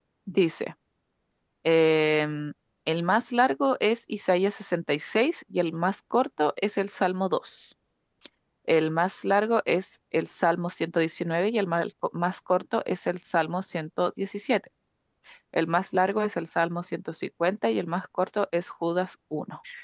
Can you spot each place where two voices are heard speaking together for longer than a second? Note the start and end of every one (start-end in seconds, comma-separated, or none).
none